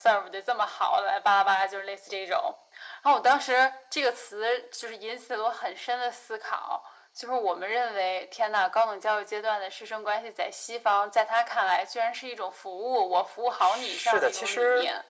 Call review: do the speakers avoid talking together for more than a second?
No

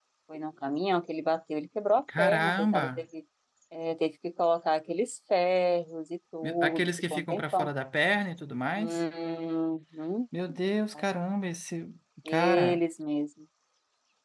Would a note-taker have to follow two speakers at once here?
Yes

